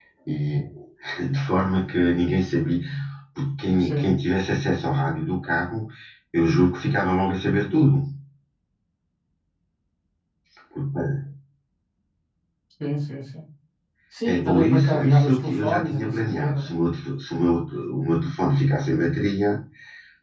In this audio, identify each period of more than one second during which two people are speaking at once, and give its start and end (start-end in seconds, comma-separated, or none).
14.2-16.7